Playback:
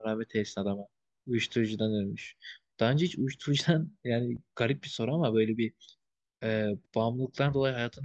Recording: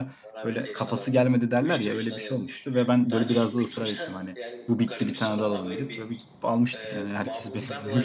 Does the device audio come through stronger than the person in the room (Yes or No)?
No